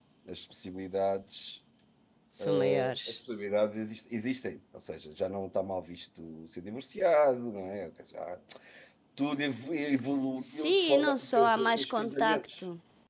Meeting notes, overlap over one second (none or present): present